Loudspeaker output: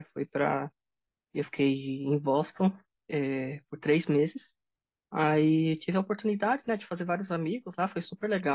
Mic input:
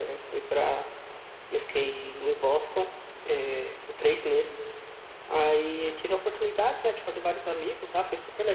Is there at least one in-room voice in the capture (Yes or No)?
No